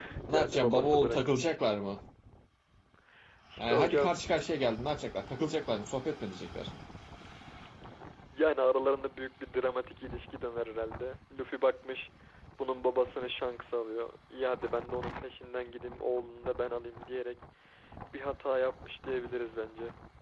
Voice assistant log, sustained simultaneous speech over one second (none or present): present